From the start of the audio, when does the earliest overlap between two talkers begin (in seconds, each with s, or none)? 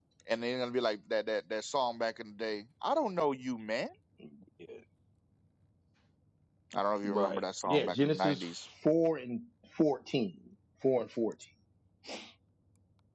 7.0 s